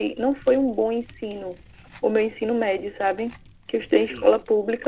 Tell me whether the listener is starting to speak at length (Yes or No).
No